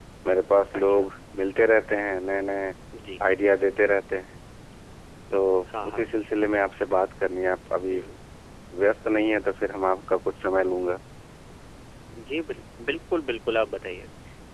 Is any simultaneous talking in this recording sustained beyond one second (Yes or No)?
No